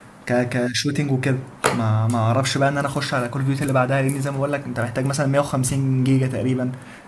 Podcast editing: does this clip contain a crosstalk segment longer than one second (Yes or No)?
No